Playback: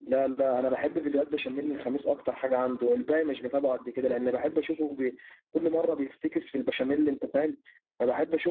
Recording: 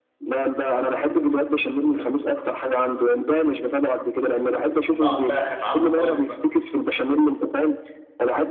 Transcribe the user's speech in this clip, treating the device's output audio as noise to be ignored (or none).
بقعد بقى ختعمها خالص بقى